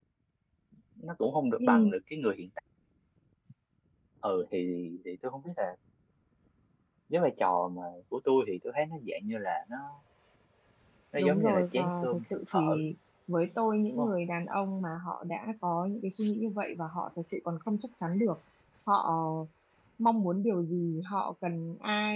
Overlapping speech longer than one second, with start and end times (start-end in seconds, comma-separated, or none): 11.2-12.8